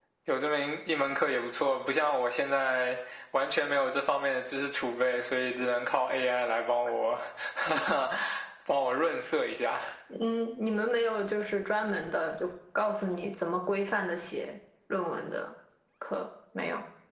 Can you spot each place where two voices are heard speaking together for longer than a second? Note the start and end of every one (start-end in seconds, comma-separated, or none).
none